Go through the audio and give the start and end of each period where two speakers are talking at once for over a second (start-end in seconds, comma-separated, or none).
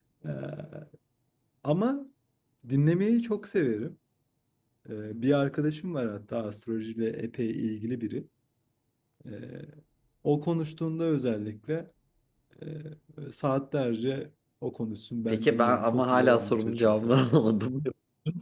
15.3-17.1